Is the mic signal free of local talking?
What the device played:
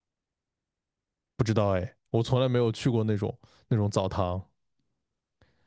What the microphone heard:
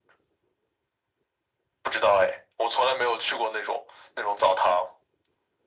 Yes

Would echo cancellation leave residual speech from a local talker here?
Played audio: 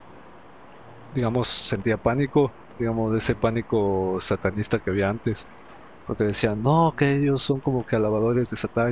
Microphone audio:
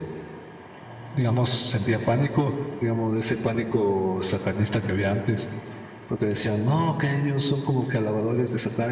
No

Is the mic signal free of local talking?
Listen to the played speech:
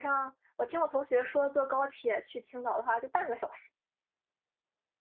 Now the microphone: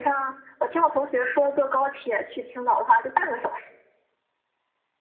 Yes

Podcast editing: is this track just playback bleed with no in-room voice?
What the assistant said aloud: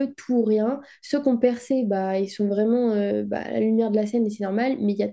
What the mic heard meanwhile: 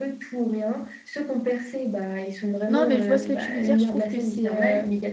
No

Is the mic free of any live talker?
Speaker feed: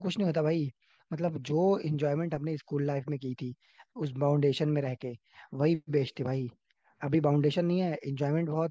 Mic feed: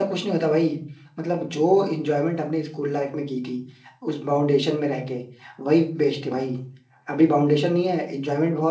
Yes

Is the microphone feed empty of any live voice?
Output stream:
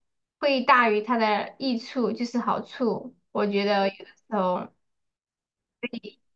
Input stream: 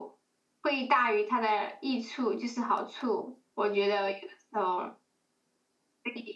Yes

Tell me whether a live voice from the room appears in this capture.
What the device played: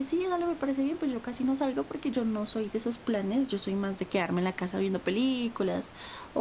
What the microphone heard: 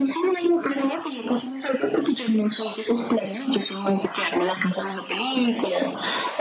No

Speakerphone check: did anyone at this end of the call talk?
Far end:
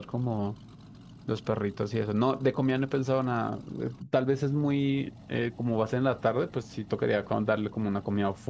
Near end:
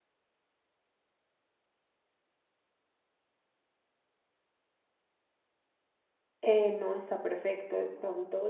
Yes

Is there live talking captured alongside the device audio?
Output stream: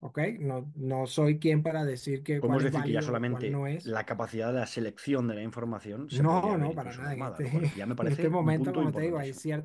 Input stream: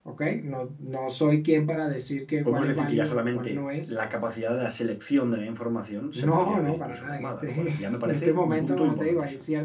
No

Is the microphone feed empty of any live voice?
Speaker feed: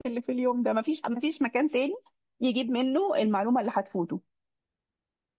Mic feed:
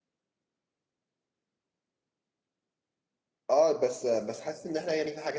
No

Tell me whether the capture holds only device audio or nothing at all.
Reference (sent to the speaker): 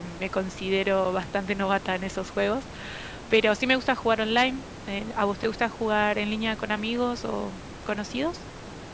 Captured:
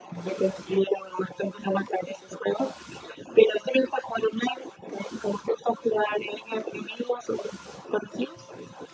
Yes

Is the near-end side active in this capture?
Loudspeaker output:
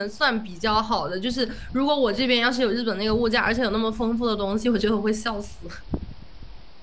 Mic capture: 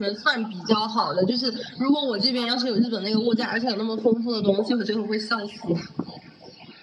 No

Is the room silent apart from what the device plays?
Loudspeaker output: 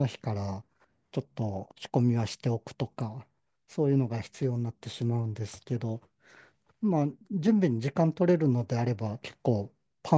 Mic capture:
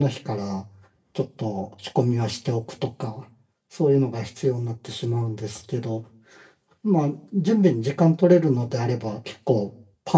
Yes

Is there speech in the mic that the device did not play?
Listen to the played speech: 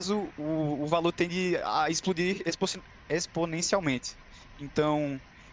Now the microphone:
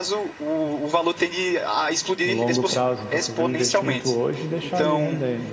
Yes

